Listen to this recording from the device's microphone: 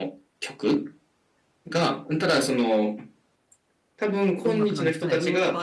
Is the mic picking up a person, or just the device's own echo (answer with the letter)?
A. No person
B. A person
B